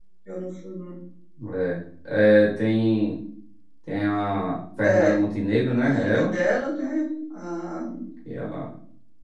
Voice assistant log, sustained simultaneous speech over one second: none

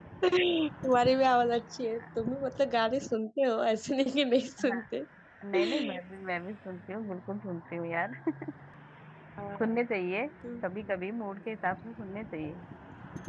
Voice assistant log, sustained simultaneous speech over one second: none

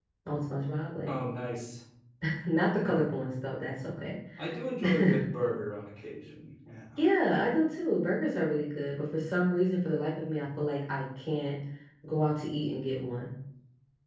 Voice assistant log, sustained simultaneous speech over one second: none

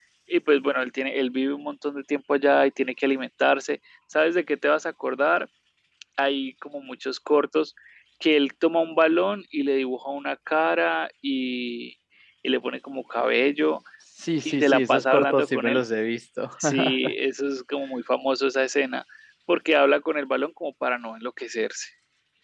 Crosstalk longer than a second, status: present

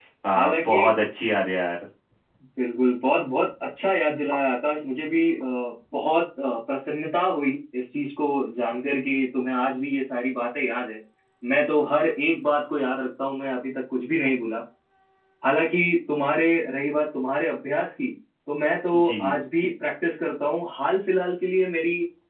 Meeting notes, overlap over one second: none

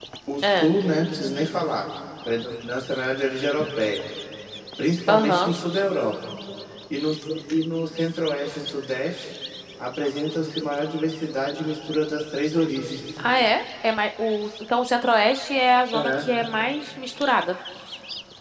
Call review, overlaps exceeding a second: none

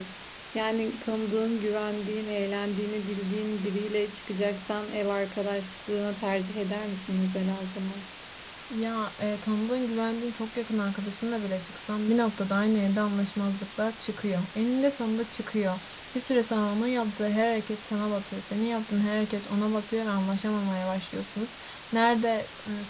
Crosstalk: none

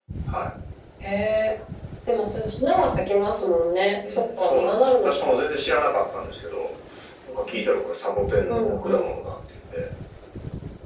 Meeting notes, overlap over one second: present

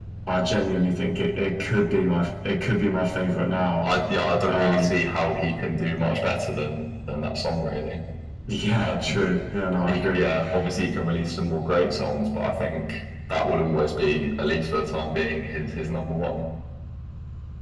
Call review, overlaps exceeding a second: none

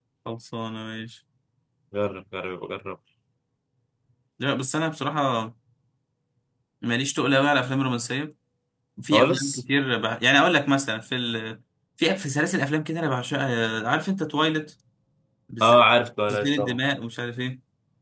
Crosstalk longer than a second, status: none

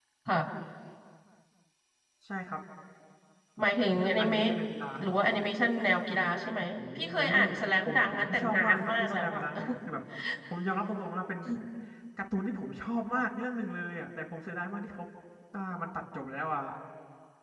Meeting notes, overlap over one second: present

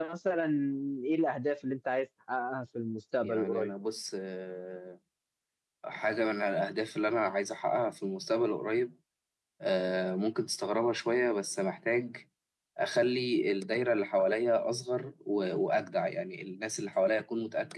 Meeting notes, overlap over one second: none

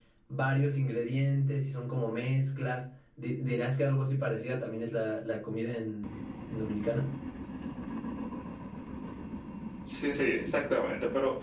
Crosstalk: none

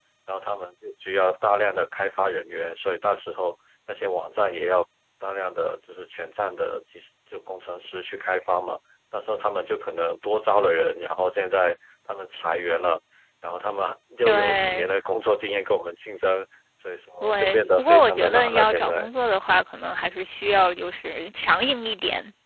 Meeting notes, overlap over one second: present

